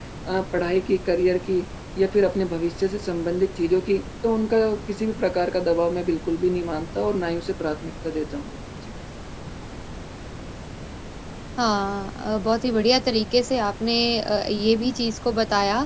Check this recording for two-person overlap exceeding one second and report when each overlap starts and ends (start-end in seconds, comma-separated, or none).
none